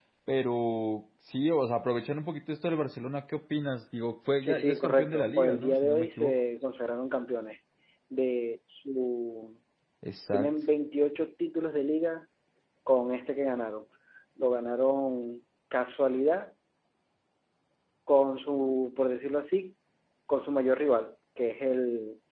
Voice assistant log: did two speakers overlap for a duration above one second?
Yes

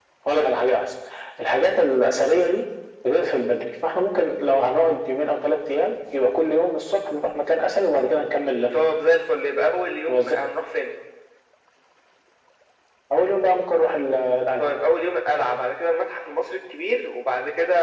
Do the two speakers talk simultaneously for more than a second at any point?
No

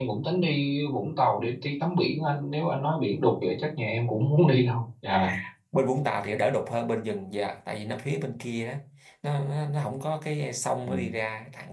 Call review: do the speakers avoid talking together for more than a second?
Yes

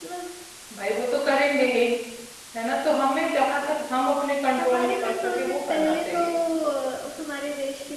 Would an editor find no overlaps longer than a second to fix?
No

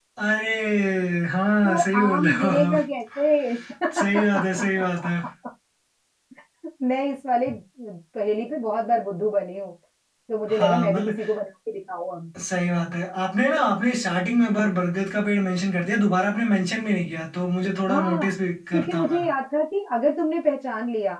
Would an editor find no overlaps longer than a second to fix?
No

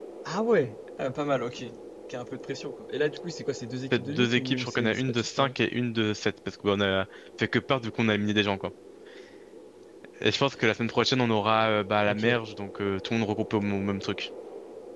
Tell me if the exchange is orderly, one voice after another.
No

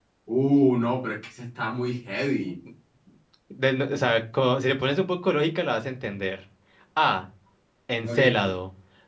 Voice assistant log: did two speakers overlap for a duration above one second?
No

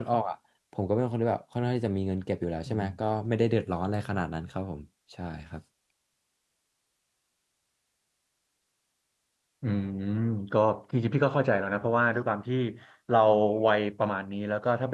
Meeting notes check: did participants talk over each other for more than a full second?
No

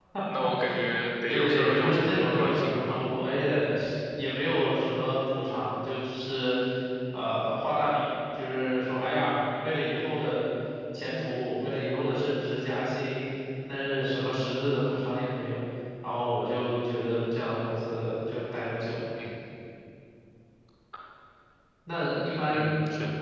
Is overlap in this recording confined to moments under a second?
No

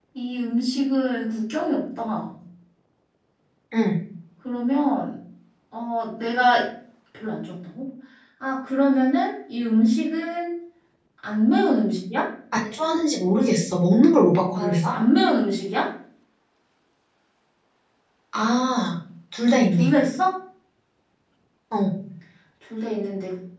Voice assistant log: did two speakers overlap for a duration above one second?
No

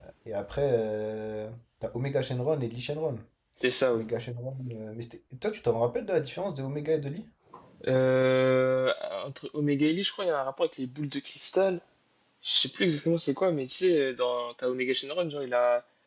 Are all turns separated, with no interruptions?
Yes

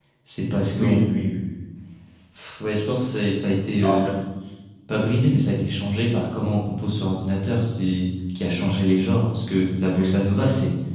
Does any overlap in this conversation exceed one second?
No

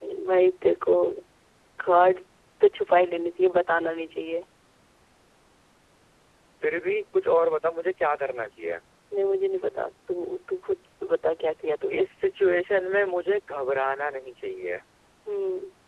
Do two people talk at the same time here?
No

